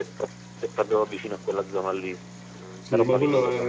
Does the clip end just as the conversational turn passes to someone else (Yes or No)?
Yes